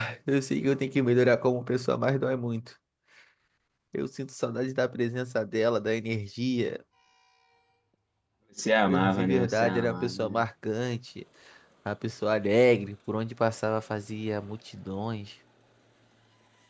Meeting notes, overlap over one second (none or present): present